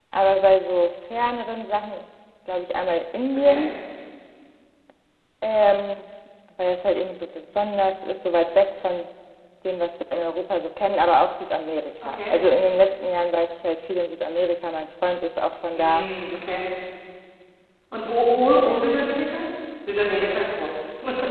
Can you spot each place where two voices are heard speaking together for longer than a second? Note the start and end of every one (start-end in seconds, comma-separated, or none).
none